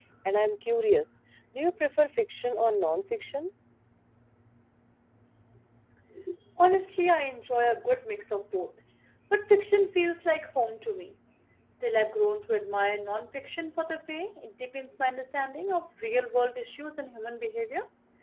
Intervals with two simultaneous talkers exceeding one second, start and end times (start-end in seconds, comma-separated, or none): none